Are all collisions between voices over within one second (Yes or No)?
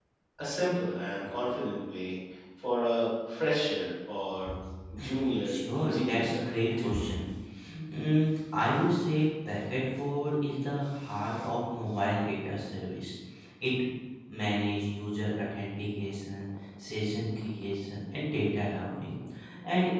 No